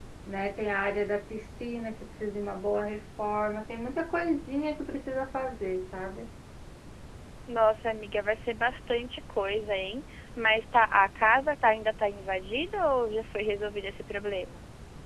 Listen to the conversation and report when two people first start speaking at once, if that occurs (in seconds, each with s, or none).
none